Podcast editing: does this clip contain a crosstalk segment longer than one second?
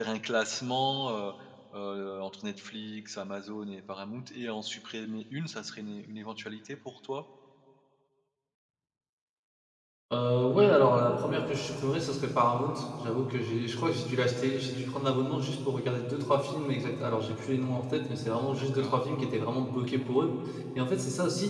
No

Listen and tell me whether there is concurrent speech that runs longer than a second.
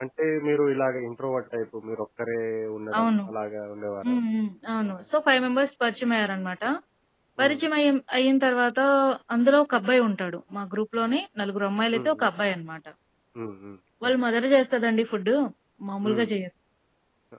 No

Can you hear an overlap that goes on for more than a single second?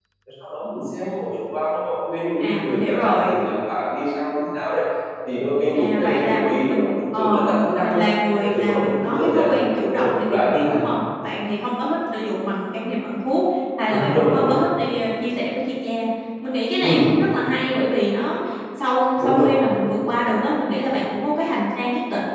Yes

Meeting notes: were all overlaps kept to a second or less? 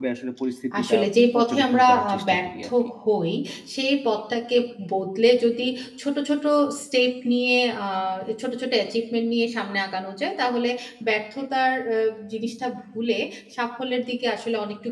No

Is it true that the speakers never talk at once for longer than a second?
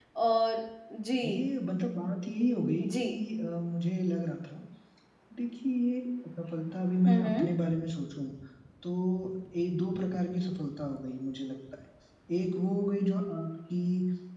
Yes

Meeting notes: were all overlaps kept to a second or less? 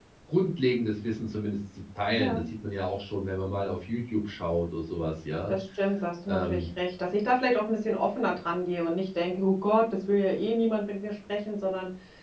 Yes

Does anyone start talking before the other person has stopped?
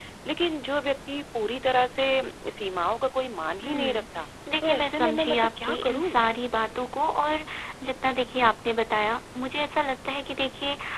Yes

